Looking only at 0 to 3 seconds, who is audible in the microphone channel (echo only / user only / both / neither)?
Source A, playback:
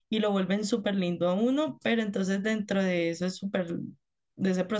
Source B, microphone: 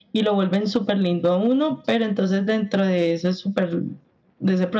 echo only